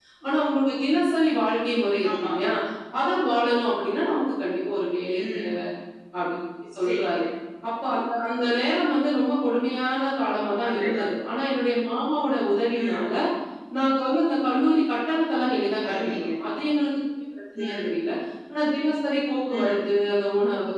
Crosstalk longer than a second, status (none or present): none